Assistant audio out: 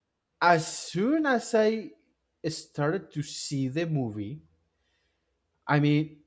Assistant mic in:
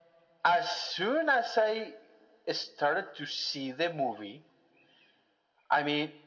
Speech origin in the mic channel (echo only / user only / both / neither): echo only